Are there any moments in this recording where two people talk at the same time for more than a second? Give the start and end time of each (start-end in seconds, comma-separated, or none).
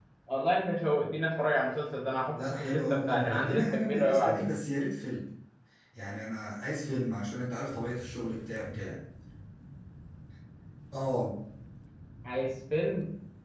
2.3-4.5